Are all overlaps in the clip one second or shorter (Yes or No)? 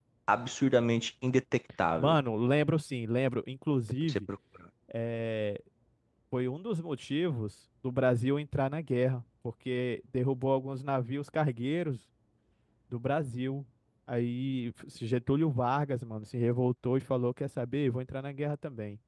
Yes